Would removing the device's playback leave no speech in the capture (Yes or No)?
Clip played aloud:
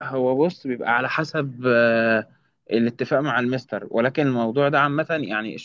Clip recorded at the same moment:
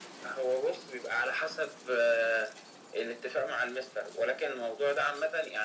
Yes